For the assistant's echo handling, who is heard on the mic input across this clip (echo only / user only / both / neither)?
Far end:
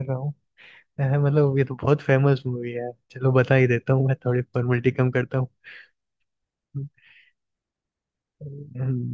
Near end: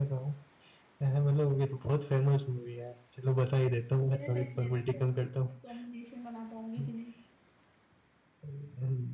both